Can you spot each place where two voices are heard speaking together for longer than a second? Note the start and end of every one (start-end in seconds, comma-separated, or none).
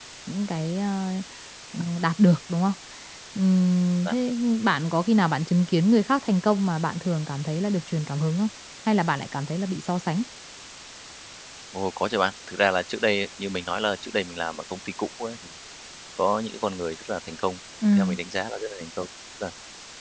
none